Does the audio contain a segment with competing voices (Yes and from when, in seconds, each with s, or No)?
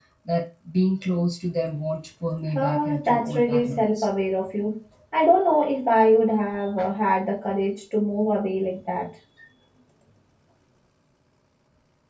Yes, from 2.5 s